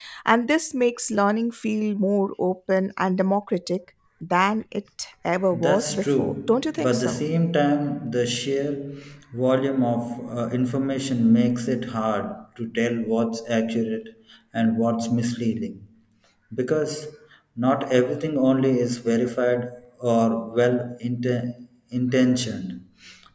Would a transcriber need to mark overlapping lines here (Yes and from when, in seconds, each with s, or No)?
Yes, from 5.5 s